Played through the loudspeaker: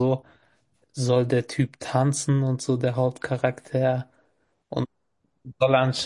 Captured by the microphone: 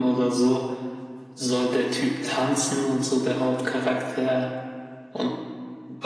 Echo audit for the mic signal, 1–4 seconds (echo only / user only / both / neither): echo only